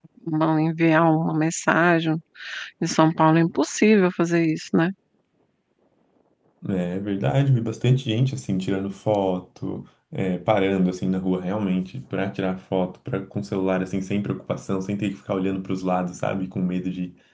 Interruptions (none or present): none